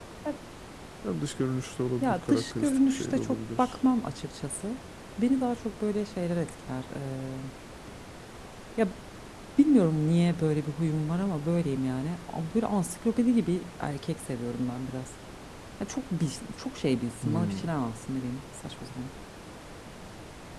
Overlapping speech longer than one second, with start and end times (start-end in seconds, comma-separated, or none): 2.0-3.8